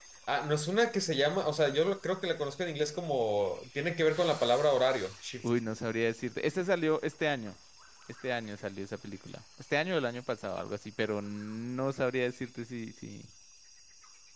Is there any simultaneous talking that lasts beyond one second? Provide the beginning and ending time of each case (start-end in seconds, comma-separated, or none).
none